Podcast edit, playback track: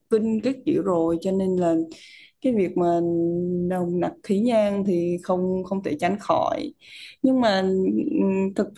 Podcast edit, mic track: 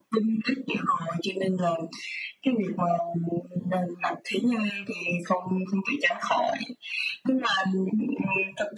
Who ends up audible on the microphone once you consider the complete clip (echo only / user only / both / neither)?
echo only